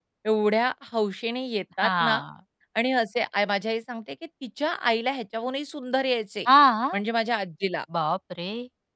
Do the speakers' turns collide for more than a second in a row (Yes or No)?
No